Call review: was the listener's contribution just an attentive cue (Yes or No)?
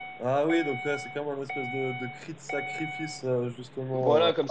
No